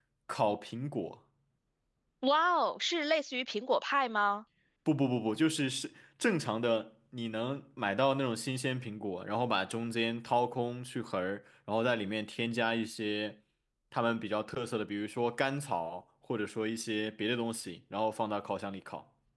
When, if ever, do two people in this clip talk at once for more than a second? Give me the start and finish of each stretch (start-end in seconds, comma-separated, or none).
none